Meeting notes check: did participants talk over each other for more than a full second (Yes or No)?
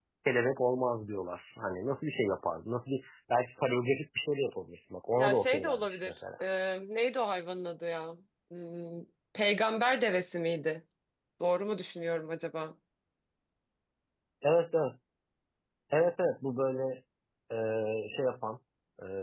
Yes